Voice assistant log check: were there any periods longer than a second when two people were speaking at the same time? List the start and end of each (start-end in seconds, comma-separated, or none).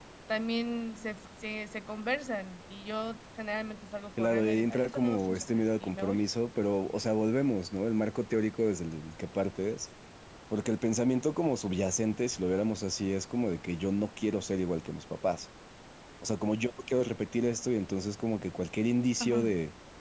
4.2-6.2